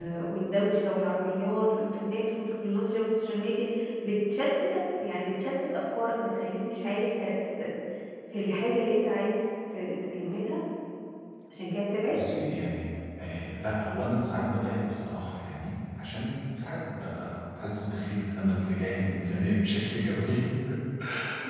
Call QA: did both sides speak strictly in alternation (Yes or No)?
Yes